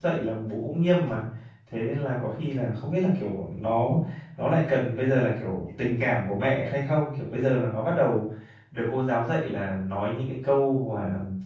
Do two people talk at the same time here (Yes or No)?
No